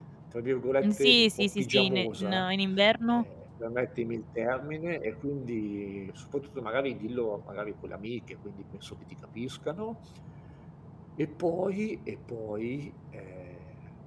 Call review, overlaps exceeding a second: present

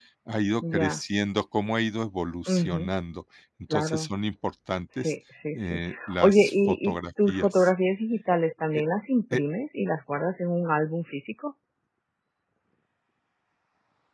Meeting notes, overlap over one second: present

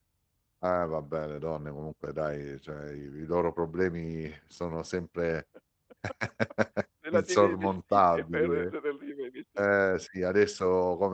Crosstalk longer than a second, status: present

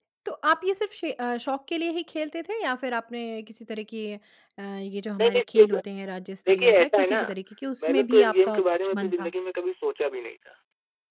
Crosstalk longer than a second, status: present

